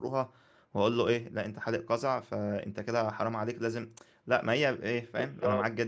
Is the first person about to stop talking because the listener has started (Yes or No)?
Yes